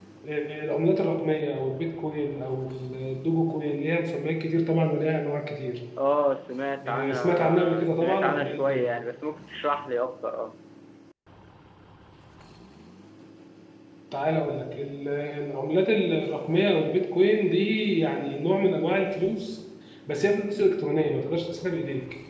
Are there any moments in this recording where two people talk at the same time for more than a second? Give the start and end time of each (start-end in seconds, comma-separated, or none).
6.8-8.9